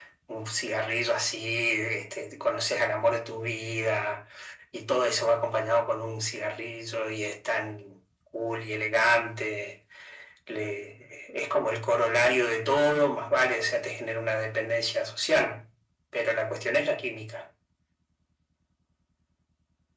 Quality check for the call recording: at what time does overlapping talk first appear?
none

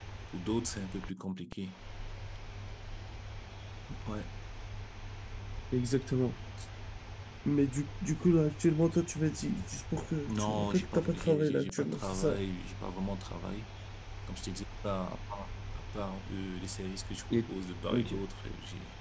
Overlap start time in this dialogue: 10.3 s

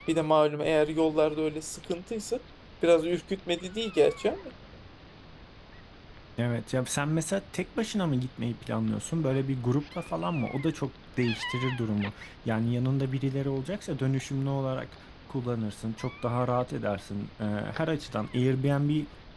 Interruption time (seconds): none

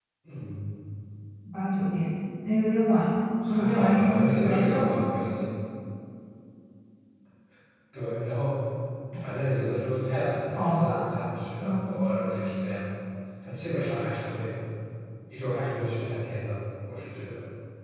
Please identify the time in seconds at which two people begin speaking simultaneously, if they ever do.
3.5 s

